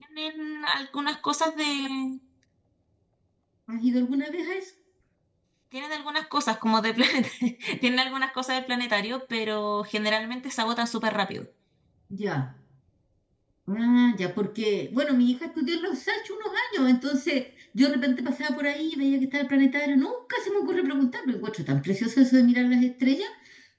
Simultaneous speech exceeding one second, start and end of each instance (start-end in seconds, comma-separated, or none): none